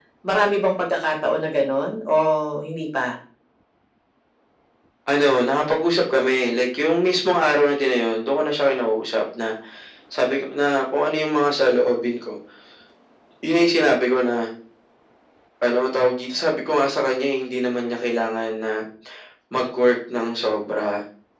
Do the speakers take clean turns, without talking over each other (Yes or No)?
Yes